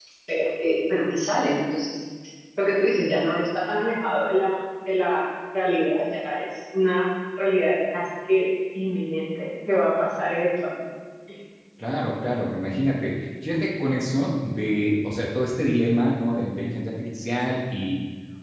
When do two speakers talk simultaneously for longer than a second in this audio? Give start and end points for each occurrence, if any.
none

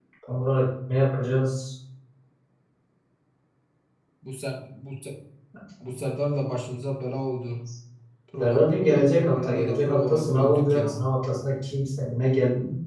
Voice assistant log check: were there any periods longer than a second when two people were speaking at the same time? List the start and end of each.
8.4-11.1

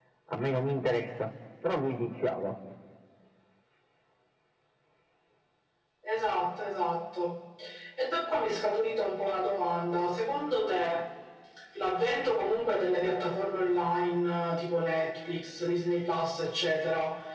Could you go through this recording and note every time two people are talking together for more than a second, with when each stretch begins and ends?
none

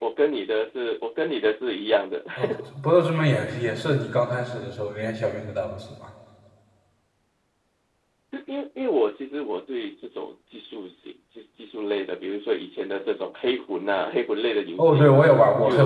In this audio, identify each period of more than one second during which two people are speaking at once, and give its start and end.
none

